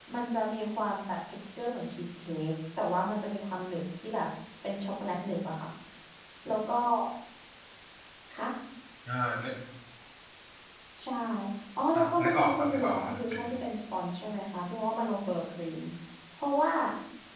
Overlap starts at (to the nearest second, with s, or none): 12 s